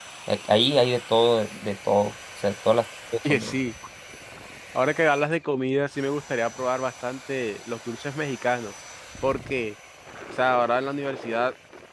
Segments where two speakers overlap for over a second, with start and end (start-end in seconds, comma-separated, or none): none